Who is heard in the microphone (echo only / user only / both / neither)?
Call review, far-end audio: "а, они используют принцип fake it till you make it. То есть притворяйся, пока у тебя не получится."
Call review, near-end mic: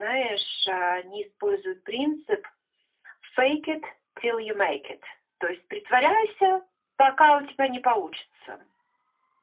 echo only